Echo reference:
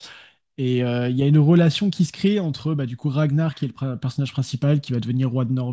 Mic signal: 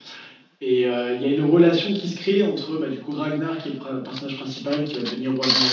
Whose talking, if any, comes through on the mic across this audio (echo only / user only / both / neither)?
echo only